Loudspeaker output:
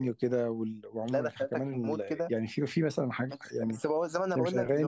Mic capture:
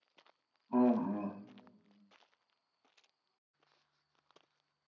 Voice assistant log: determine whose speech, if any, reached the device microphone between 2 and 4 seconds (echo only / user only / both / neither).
neither